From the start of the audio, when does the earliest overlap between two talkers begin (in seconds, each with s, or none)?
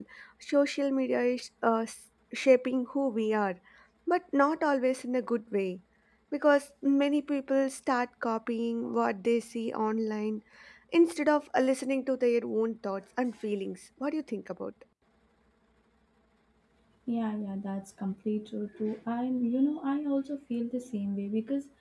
none